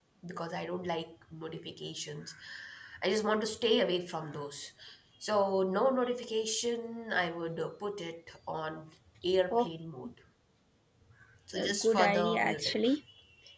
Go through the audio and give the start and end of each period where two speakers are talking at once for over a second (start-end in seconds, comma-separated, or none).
11.6-12.9